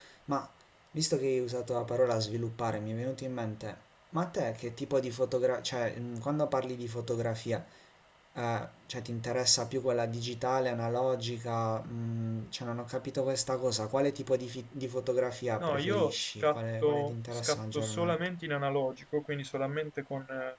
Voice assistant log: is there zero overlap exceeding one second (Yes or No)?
No